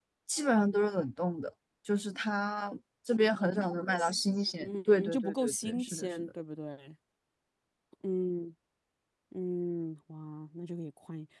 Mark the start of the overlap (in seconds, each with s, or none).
4.6 s